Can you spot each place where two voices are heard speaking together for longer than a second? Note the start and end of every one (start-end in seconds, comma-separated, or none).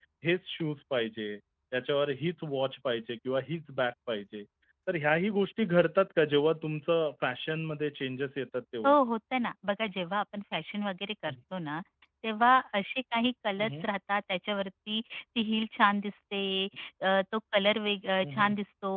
none